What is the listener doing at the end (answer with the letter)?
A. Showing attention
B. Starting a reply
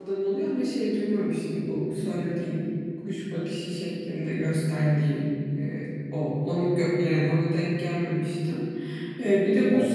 A